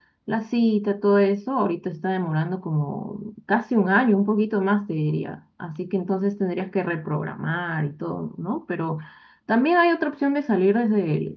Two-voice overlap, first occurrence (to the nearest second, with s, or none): none